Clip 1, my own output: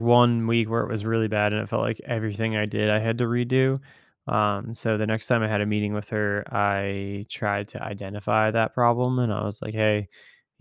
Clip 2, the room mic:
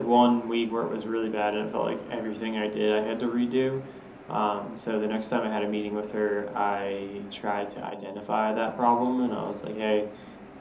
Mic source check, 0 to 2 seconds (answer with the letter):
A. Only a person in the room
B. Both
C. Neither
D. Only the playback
D